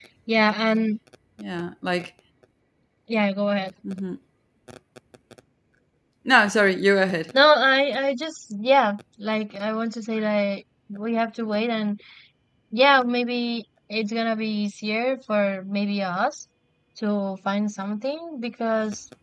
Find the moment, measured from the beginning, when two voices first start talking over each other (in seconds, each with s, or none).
none